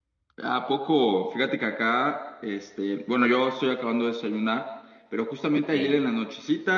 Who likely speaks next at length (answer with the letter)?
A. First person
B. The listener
A